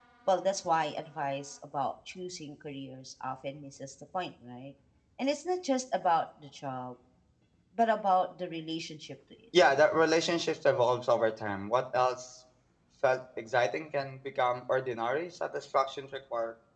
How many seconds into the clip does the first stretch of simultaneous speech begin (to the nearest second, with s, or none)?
none